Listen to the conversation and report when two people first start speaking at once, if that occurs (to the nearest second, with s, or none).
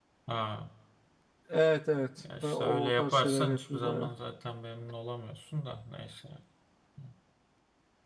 2 s